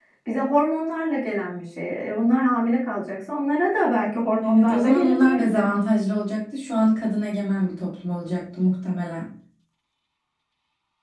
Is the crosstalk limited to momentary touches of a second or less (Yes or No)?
No